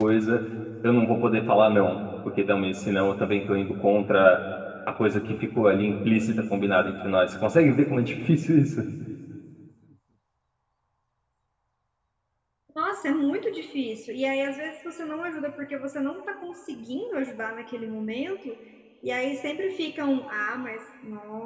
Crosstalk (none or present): none